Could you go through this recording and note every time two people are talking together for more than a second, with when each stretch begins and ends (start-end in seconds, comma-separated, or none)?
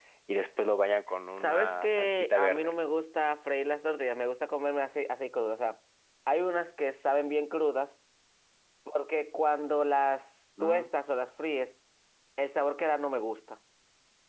1.4-2.7